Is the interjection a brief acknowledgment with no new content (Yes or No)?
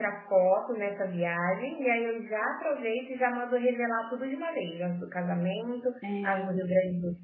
Yes